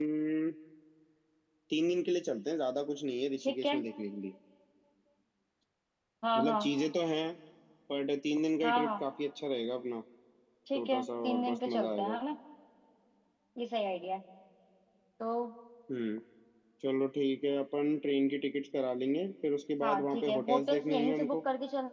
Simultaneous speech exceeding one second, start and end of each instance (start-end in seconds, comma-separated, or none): 10.8-12.2, 19.8-21.4